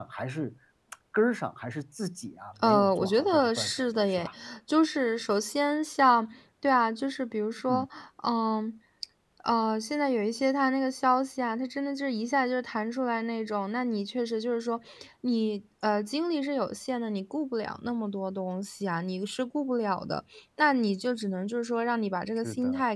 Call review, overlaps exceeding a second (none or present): present